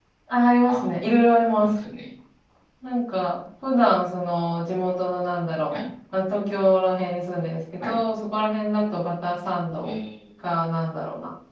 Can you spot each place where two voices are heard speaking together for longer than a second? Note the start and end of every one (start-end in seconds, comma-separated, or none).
none